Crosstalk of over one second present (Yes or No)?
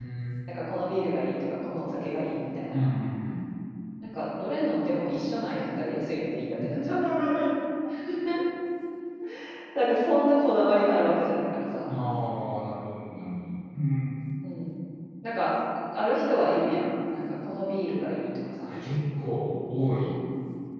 No